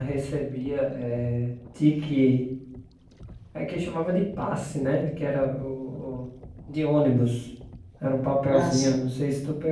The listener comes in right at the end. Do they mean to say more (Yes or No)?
No